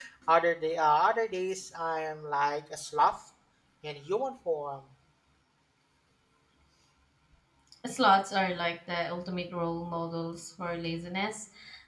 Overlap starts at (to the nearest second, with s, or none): none